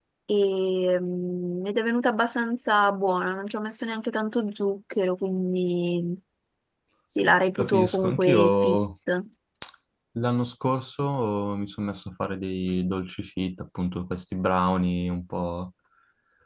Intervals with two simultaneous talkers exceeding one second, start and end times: 7.6-8.8

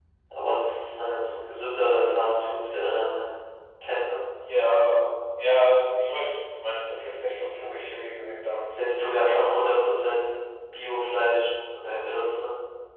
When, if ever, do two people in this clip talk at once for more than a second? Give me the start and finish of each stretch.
none

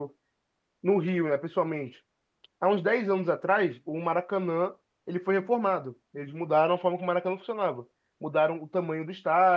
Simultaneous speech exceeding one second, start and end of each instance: none

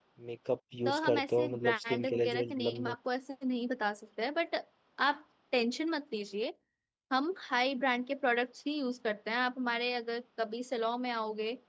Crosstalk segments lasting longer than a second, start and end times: 0.8-2.9

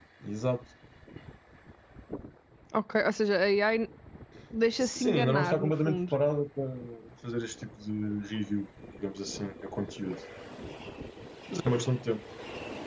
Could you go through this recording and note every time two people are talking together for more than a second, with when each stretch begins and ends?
4.8-6.1

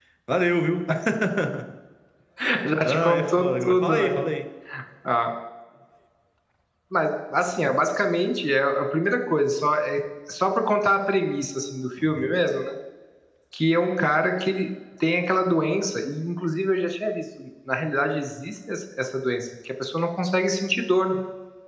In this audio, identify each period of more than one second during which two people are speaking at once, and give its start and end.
2.8-4.1

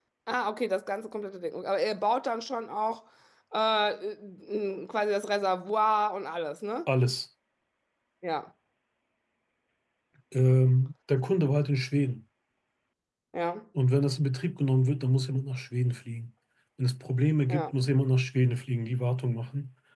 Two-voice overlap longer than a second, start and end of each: none

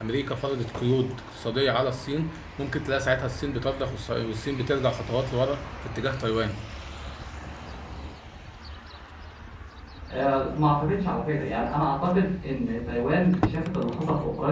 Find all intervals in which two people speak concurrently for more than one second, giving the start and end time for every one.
none

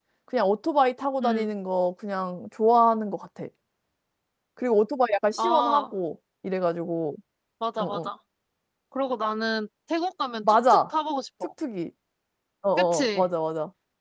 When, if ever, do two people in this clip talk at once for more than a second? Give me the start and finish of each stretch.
none

